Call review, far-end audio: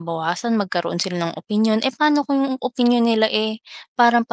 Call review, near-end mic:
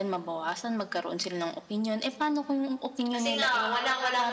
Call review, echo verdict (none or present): present